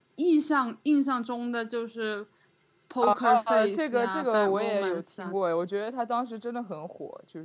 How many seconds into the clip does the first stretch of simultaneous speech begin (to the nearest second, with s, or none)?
3 s